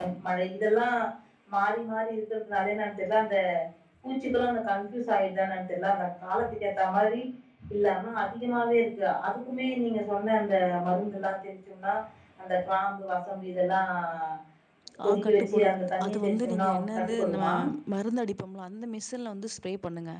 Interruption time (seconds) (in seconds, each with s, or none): 15.1 s